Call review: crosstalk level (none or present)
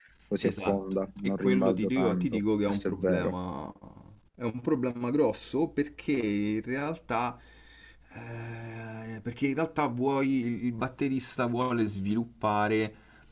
present